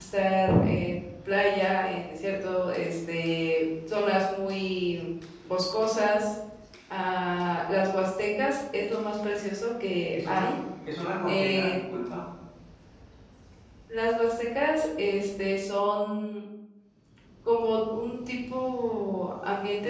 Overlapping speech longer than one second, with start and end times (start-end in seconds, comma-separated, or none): none